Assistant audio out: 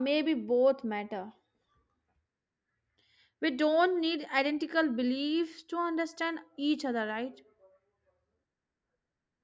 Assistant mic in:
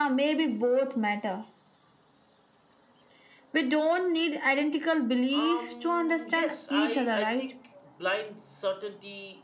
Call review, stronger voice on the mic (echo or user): echo